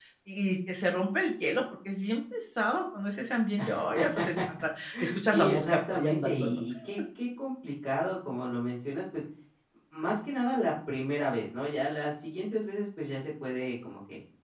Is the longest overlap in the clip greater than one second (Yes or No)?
Yes